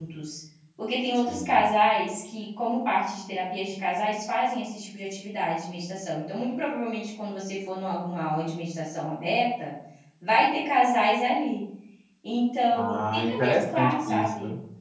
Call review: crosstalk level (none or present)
present